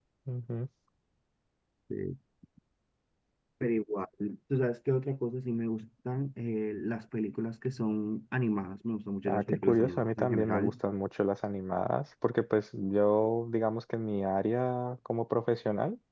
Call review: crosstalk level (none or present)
present